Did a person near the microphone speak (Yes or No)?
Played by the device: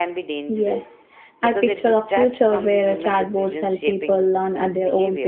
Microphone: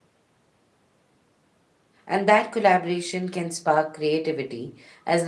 Yes